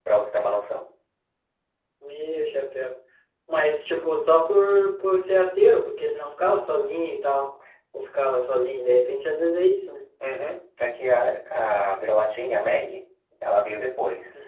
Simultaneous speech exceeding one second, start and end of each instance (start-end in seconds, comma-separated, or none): none